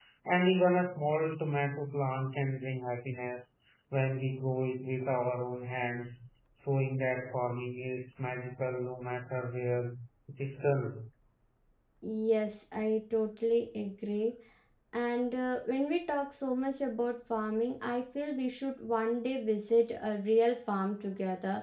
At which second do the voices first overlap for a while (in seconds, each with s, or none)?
none